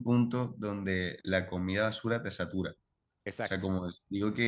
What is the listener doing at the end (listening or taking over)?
listening